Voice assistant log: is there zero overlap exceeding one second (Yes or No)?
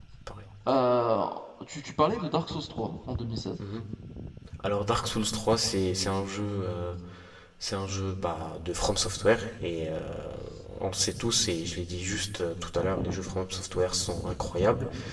Yes